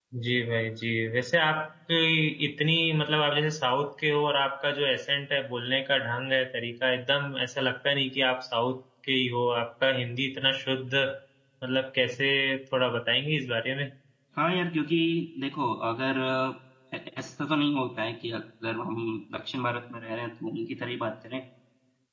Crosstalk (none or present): none